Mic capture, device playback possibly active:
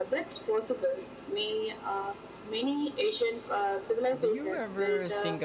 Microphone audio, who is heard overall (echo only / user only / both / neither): both